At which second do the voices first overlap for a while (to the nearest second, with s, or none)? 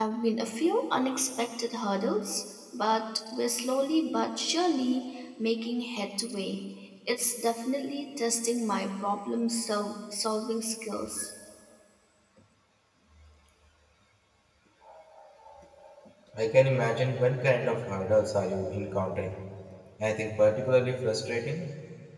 none